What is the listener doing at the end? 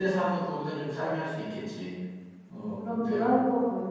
taking over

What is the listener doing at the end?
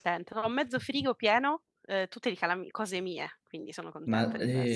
taking over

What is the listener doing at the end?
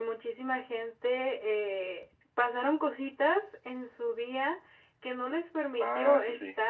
listening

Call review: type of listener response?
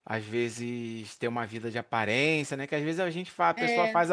listening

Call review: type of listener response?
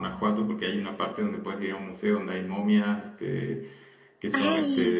listening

